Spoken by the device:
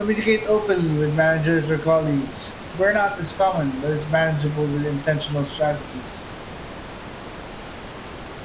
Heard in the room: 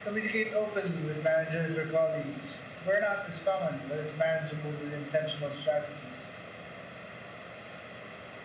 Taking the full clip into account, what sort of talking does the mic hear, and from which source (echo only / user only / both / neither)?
echo only